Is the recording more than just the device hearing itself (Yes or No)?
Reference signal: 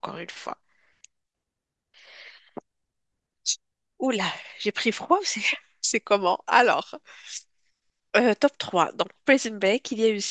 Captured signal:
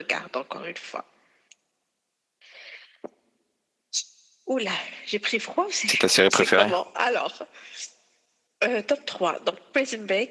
Yes